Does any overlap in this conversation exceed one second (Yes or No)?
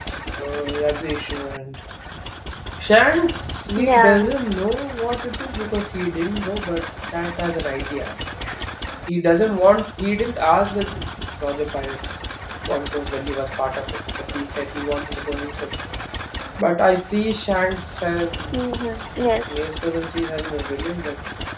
No